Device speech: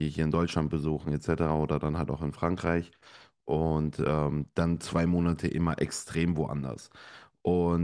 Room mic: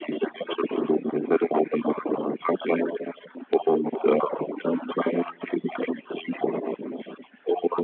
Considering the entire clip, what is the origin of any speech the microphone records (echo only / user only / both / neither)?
echo only